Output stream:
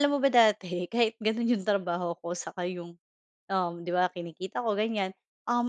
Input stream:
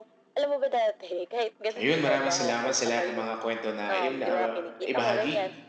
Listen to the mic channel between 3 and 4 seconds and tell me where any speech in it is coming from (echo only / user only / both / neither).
both